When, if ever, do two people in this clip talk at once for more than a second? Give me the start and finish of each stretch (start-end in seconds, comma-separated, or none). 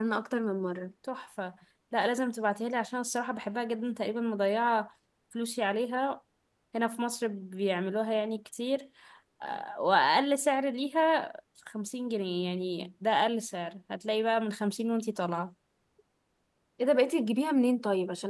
none